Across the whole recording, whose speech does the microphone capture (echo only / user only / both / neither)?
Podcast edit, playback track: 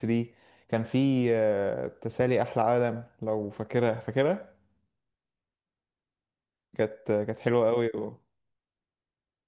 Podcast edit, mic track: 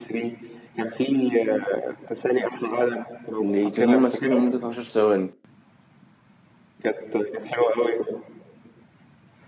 both